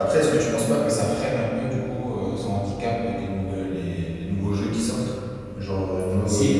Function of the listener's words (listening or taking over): listening